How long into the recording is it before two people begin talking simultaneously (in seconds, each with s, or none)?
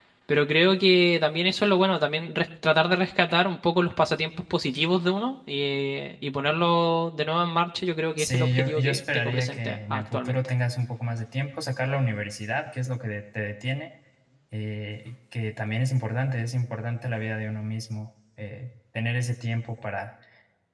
8.2 s